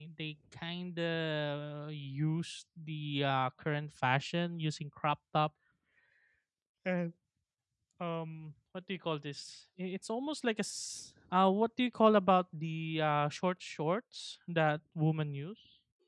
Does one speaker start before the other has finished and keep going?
No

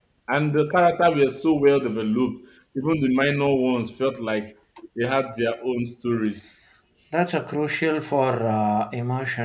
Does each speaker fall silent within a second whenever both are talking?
Yes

